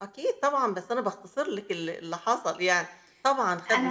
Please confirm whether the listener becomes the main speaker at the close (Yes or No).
Yes